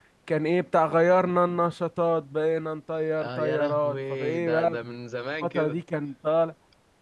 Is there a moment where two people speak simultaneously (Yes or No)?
Yes